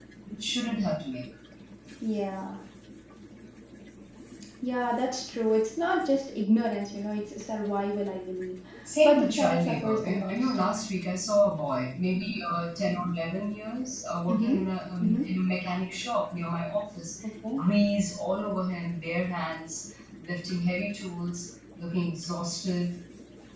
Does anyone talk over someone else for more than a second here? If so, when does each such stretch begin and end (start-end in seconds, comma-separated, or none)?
9.0-10.6